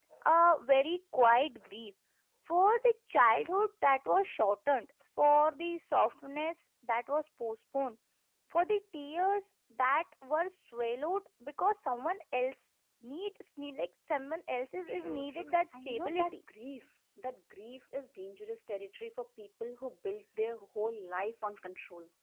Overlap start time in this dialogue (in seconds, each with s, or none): 14.9 s